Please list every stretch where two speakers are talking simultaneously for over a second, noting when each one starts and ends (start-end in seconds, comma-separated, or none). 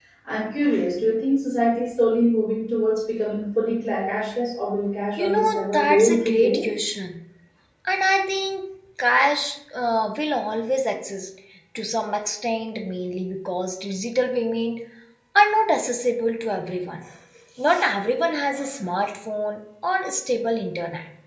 5.2-6.6